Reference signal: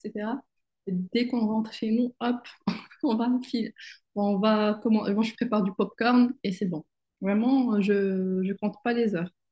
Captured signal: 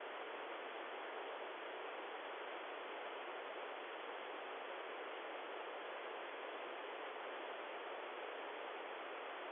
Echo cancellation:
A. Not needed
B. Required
A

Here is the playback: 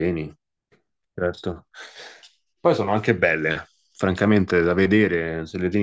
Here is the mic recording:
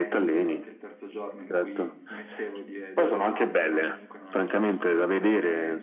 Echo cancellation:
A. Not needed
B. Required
B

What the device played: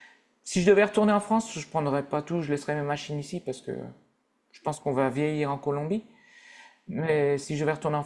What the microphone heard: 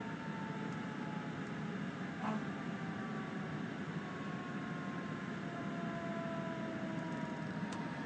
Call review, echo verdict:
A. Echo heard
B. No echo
B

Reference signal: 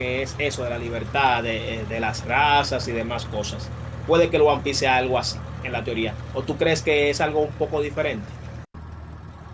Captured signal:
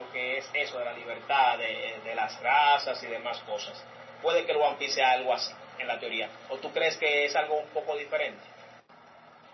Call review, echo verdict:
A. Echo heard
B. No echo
A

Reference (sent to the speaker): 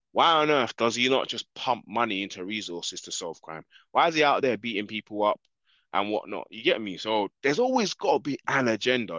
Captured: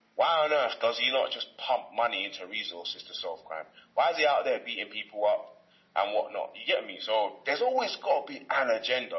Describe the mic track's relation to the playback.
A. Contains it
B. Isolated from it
A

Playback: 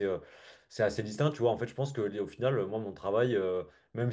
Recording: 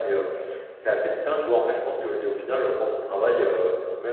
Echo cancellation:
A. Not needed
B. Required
B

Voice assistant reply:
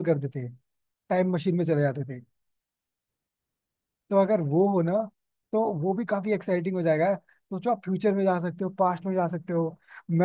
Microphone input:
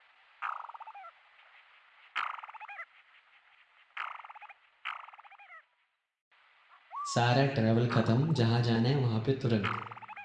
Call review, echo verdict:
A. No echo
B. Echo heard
A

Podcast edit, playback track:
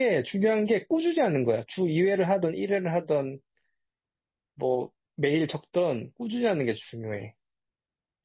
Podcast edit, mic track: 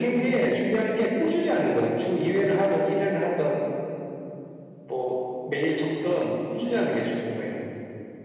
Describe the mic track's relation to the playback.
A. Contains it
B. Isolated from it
A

